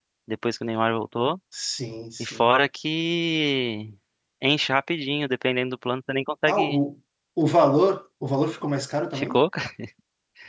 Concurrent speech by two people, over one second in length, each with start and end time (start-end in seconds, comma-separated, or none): none